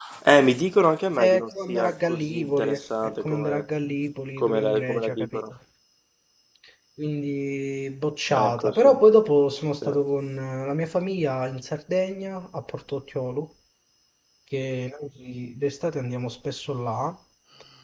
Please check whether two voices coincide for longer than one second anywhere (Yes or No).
Yes